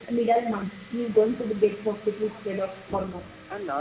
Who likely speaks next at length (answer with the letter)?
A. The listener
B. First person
A